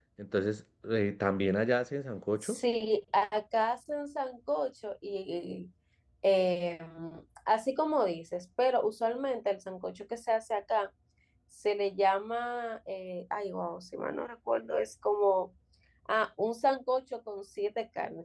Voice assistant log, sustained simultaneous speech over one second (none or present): none